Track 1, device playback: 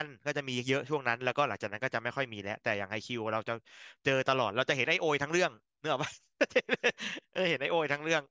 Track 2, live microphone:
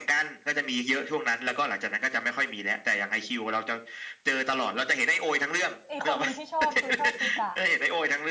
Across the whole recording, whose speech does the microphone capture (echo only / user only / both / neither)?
both